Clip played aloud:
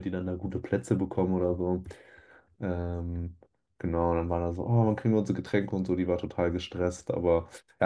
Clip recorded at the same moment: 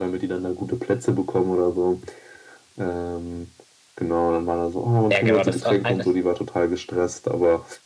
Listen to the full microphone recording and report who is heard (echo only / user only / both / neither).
both